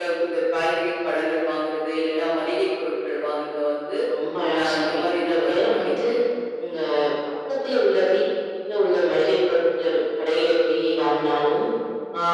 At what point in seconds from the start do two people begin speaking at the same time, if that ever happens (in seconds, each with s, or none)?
4.6 s